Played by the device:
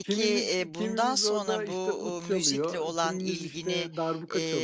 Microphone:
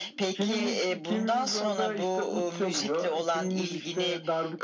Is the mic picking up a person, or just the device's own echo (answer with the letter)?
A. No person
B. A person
A